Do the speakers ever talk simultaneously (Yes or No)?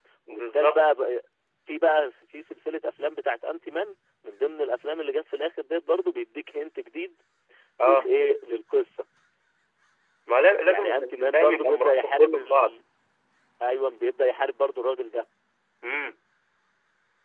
Yes